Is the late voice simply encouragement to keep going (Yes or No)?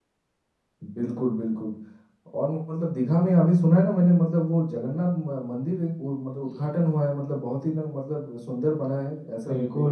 No